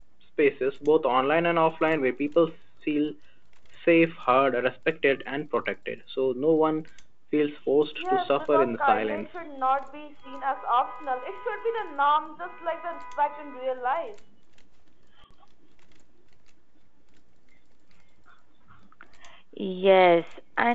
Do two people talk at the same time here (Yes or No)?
Yes